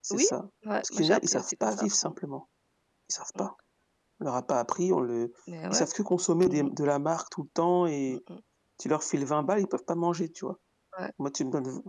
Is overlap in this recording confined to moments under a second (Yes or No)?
No